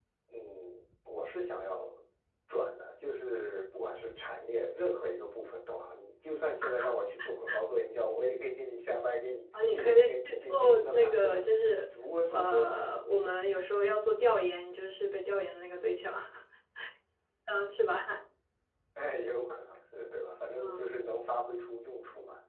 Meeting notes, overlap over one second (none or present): present